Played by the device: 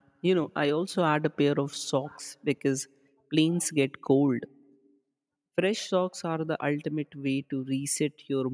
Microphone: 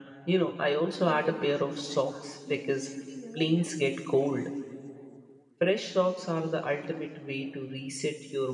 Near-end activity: present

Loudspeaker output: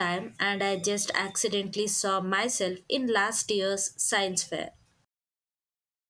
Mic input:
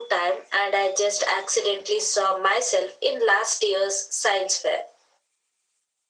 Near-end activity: none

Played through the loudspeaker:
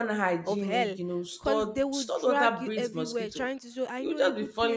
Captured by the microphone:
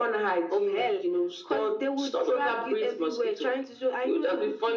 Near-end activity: none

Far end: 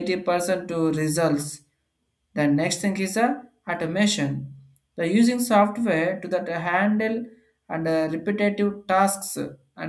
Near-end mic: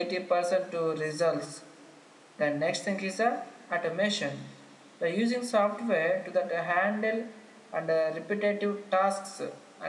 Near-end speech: none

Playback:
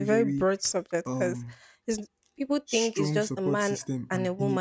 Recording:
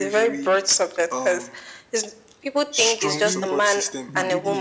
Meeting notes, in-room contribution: present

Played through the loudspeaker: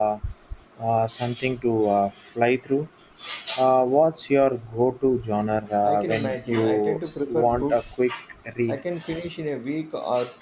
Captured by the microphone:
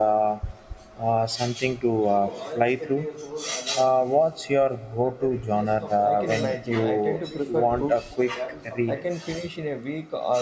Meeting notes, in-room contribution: present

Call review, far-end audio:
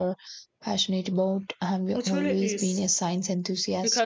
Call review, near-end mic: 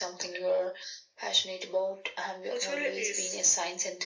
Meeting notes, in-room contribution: none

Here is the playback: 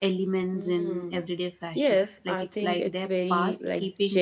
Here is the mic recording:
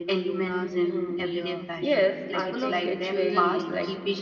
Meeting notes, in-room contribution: present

